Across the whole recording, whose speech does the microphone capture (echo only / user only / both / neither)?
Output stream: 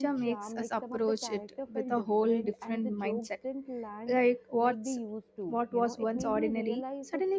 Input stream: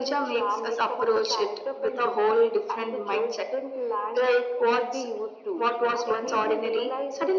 echo only